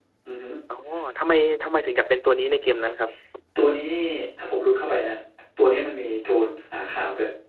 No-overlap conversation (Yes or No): Yes